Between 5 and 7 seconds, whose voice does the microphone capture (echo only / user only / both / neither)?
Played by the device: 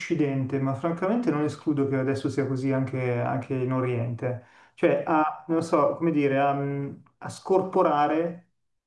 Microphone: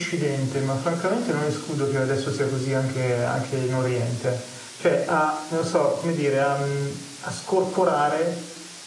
echo only